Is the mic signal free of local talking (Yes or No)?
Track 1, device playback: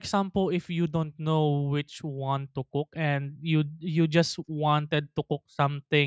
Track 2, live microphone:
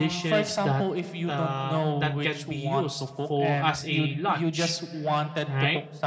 No